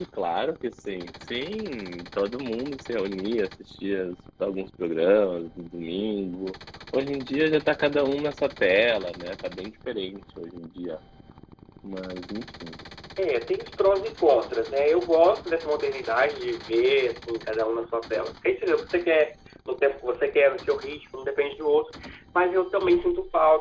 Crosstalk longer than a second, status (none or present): none